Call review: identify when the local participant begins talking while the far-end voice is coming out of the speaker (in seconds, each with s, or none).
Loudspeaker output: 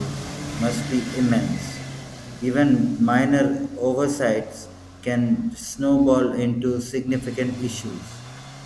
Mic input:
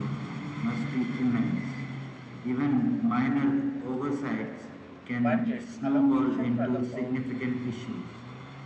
5.2 s